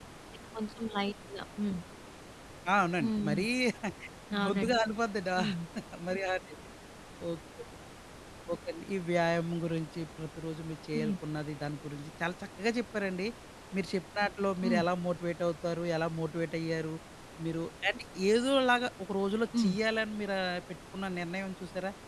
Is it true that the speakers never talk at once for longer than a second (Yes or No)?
Yes